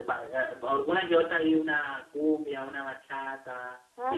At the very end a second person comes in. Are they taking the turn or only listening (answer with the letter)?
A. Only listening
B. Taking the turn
B